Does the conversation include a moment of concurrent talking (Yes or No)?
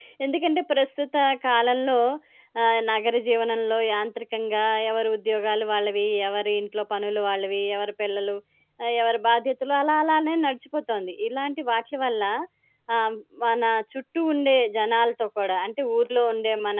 No